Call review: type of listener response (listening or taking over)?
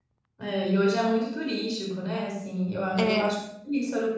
listening